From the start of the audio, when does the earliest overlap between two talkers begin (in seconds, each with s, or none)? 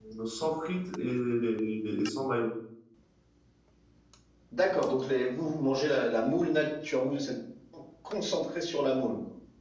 none